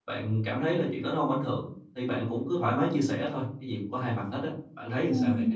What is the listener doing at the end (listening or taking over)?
taking over